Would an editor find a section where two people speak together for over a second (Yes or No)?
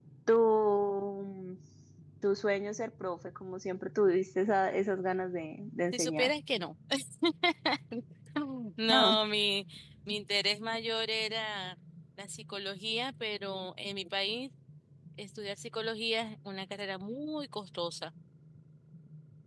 No